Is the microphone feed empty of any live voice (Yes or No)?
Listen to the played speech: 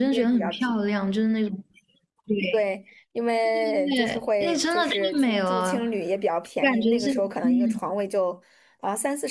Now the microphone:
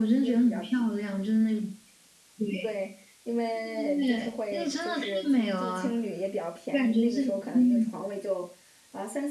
Yes